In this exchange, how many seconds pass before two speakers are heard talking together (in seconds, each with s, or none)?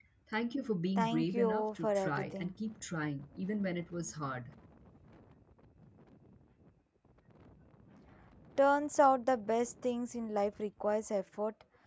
1.0 s